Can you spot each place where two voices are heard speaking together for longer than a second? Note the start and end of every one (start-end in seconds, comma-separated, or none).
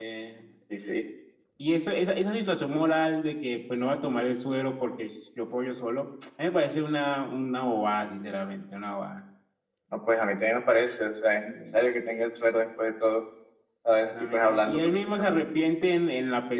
14.0-15.4